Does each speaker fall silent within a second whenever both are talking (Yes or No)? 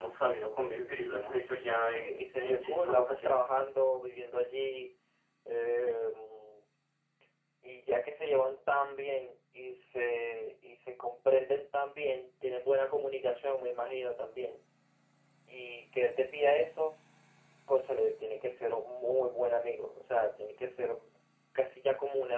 No